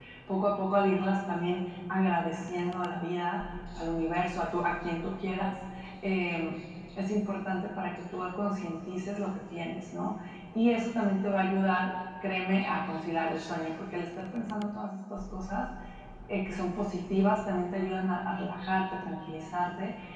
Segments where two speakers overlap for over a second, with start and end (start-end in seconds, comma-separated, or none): none